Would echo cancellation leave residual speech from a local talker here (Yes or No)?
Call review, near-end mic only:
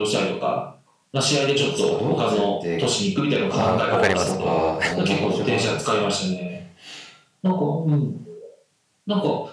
Yes